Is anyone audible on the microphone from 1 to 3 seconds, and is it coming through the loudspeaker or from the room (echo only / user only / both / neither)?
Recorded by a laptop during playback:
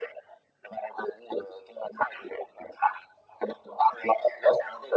echo only